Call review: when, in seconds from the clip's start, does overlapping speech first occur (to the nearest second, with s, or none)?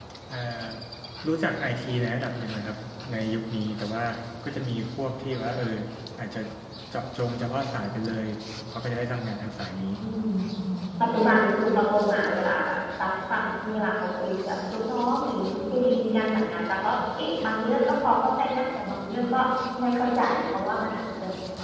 none